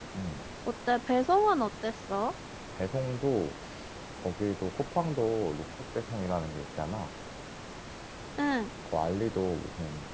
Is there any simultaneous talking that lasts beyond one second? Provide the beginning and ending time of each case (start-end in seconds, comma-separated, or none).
none